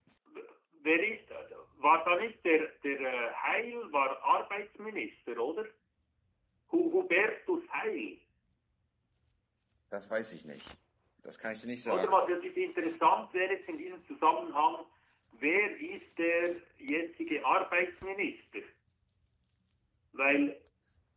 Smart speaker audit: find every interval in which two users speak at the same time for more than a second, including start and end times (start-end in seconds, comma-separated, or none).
none